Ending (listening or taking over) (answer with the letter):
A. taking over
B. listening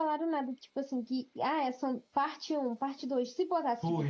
B